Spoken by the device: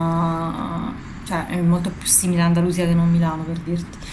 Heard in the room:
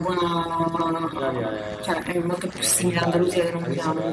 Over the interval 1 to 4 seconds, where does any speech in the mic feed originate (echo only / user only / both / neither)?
both